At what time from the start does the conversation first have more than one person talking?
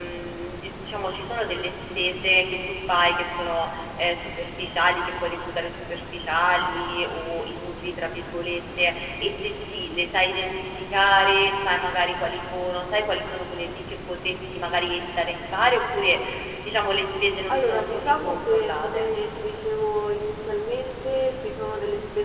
17.5 s

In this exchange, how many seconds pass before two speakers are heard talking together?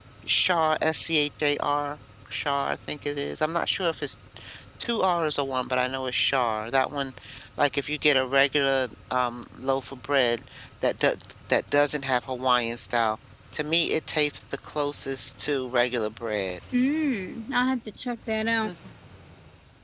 none

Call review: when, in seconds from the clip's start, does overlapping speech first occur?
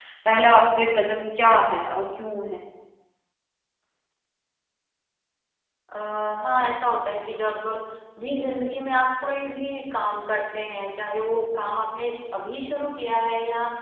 none

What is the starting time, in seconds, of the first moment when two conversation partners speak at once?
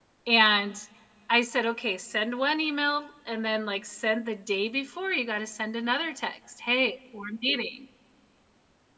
none

